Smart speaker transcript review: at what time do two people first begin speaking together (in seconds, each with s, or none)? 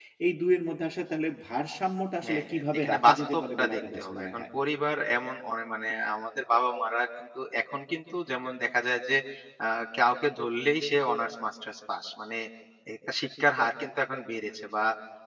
2.2 s